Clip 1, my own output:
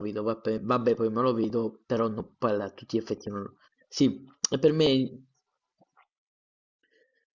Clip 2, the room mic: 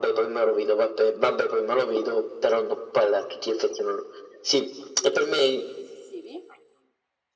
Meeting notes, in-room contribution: present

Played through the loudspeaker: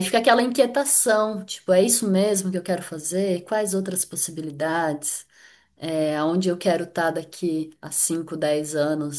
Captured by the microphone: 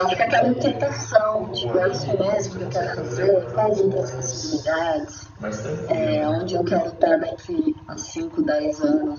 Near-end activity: present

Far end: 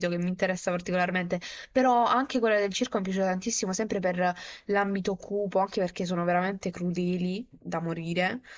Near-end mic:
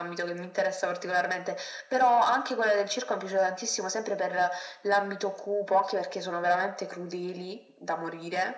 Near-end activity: none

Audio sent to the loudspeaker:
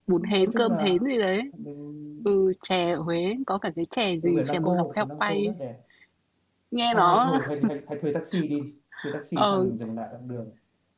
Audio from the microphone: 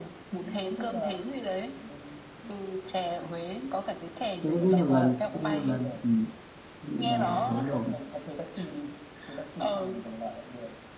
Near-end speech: present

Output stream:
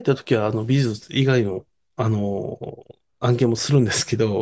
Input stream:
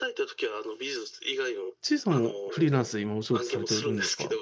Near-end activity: present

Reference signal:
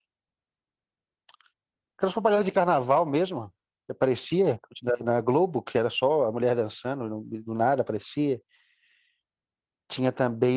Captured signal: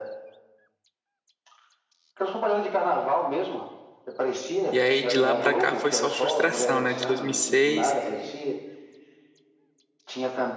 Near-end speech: present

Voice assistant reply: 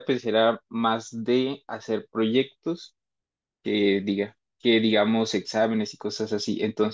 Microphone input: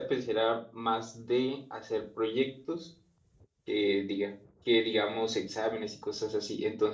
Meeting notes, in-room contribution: none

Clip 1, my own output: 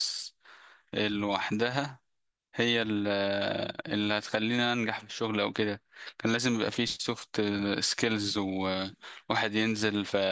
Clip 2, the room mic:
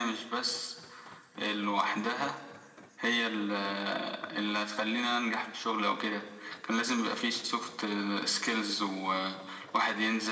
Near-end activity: none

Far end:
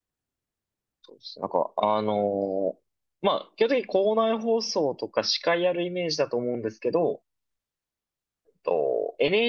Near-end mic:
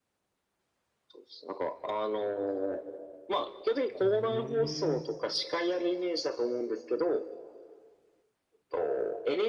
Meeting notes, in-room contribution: present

